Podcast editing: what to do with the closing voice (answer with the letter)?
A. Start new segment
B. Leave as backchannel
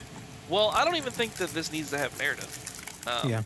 B